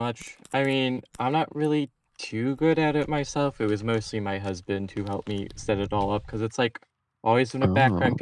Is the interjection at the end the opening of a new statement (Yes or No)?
No